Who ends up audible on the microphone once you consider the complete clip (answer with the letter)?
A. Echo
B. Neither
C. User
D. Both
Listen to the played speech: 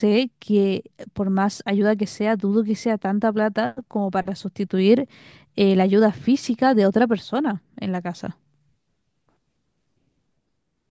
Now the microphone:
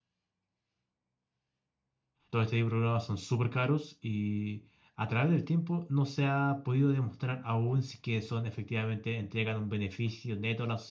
C